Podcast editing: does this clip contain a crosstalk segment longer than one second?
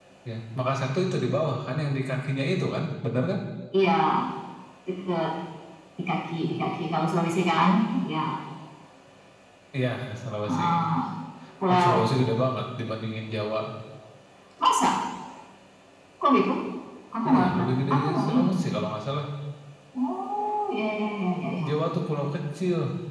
Yes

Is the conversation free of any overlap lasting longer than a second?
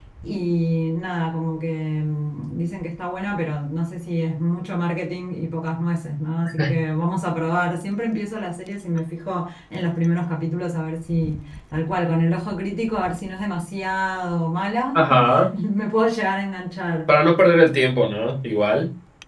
Yes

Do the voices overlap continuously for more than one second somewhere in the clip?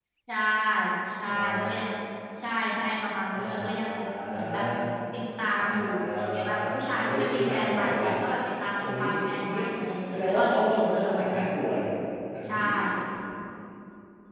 Yes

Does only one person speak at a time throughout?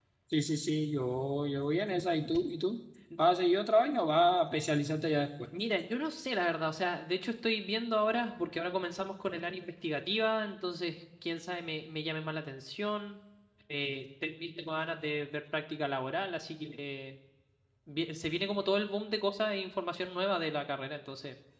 Yes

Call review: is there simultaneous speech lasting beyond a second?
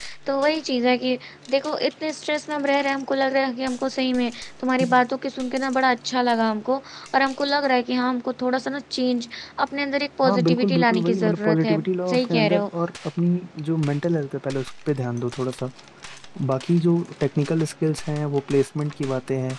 Yes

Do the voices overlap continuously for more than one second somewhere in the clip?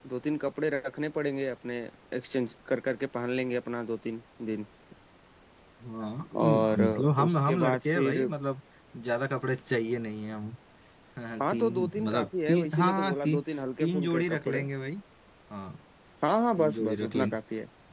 Yes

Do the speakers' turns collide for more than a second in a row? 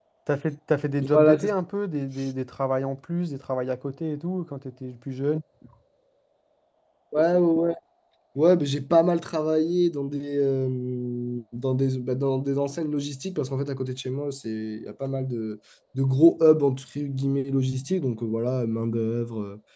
No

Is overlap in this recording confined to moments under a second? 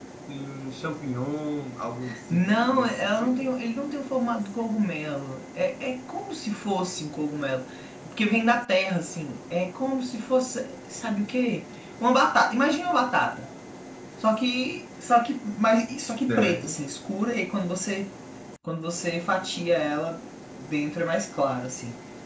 No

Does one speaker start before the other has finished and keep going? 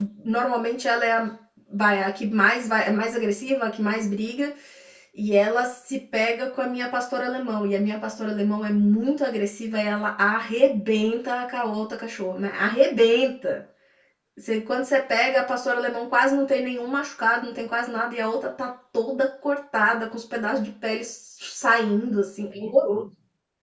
No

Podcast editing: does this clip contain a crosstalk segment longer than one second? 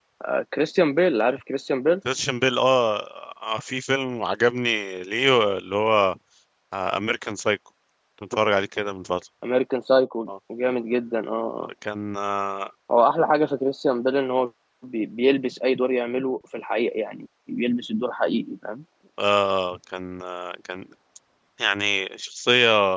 No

